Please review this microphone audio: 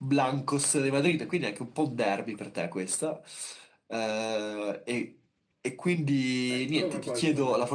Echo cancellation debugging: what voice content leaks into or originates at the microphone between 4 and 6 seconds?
echo only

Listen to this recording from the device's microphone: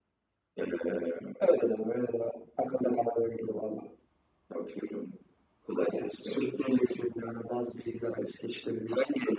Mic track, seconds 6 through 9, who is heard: echo only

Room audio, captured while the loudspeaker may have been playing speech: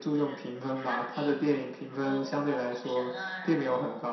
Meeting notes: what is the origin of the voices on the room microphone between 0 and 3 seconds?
both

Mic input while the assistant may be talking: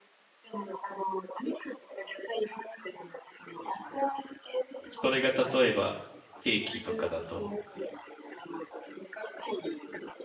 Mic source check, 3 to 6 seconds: both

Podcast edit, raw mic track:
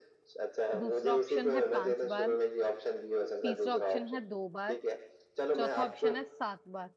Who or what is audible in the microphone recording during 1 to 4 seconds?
both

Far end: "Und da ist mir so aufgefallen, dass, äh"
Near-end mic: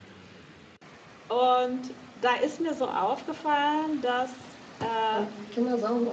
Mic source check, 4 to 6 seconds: both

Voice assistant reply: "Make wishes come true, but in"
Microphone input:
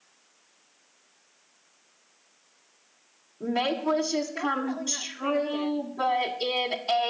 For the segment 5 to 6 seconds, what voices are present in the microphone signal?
both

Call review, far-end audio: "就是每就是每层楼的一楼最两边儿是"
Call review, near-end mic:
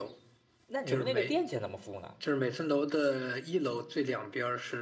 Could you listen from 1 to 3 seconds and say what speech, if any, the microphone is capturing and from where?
both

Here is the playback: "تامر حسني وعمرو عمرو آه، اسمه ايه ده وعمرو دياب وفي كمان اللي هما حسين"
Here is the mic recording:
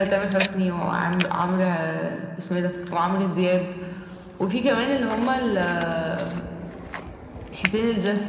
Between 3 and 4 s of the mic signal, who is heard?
echo only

